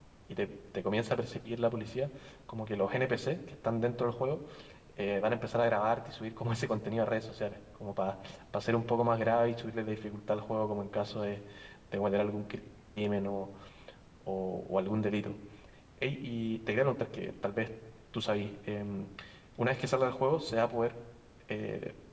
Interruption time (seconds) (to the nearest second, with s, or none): none